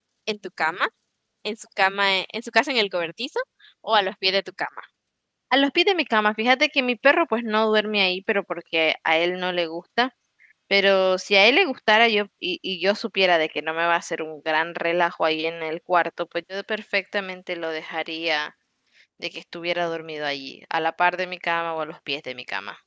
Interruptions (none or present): none